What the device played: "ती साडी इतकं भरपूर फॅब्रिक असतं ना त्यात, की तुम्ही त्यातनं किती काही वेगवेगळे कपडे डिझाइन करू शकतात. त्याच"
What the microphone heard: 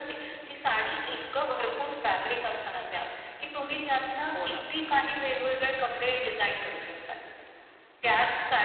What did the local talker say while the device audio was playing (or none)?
हो ना.